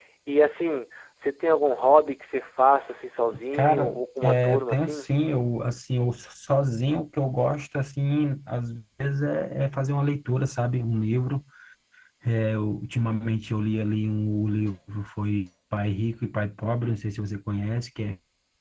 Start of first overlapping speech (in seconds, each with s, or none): 3.5 s